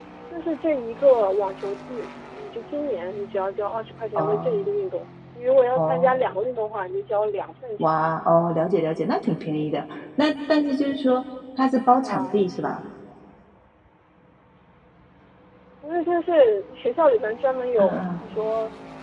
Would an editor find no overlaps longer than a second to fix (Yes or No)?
Yes